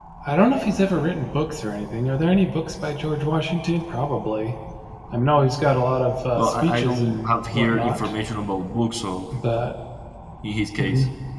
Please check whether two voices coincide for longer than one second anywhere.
Yes, from 6.4 s

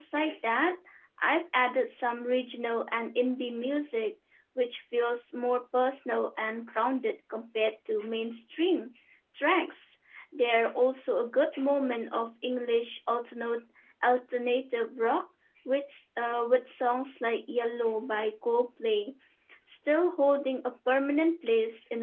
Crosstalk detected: No

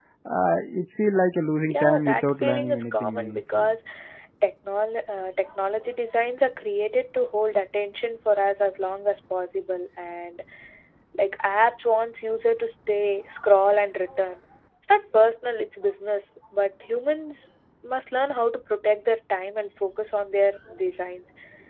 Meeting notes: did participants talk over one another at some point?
Yes, from 1.7 s

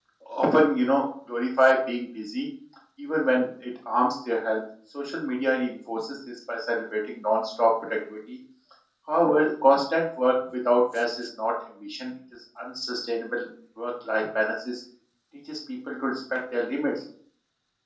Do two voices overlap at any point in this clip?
No

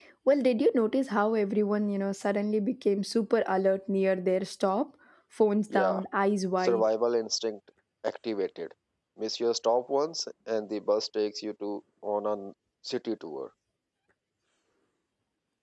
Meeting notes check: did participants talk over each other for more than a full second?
No

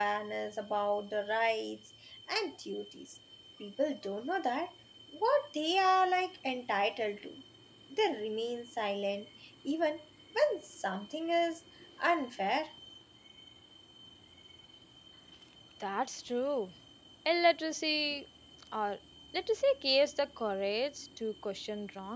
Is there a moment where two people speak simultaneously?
No

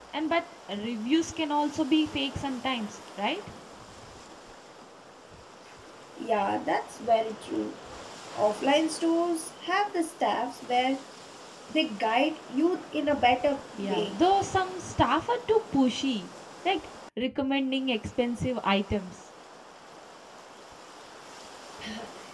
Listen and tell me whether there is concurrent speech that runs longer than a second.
No

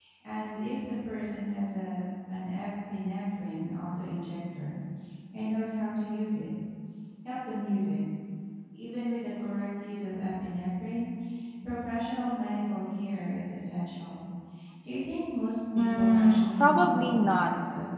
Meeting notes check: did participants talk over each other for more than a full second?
Yes, from 15.8 s

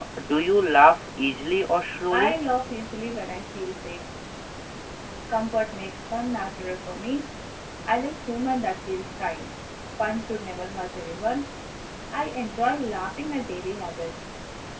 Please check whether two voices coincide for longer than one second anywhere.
No

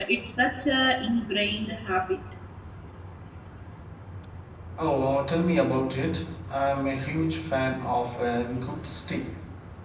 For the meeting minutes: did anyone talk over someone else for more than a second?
No

